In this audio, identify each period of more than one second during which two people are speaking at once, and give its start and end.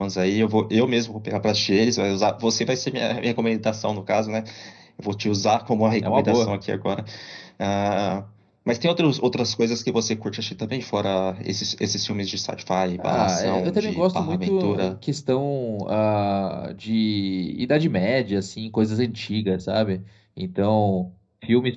13.0-14.9

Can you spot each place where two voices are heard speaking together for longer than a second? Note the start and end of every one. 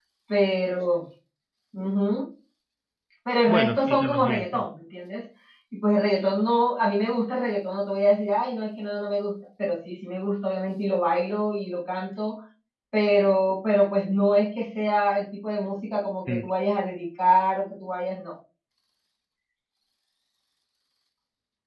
3.5-4.7

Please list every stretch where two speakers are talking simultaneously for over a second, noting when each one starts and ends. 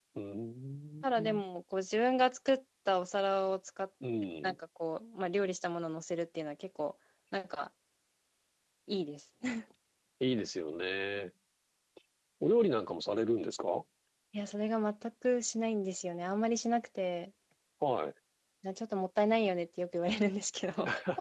none

